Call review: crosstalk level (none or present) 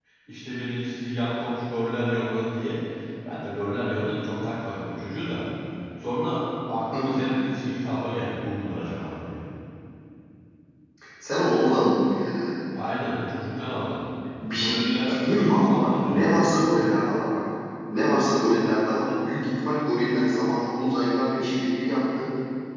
present